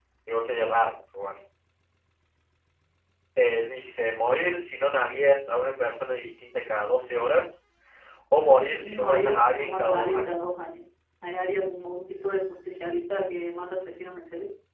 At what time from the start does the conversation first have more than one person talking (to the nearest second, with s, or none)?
9 s